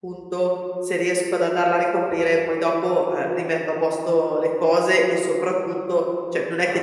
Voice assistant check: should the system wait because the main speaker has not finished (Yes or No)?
Yes